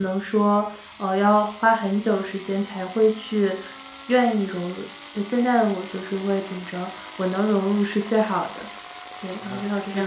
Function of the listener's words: taking over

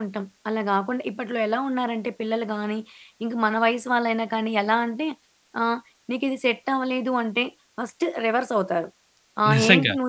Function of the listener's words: listening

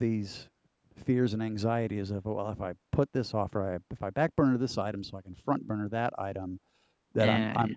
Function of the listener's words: listening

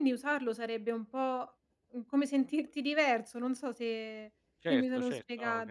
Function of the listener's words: taking over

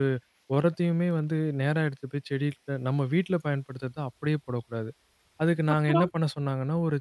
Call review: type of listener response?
listening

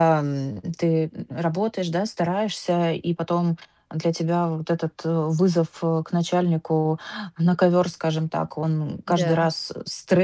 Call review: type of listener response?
listening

